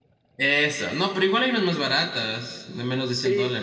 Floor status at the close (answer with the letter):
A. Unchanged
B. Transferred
B